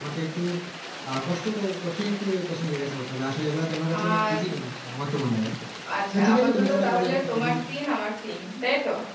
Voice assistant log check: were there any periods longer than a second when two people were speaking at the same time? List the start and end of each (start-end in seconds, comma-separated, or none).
6.1-7.5